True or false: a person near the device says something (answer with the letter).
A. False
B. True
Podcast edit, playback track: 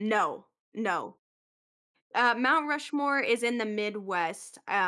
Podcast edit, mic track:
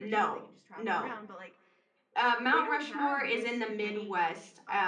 B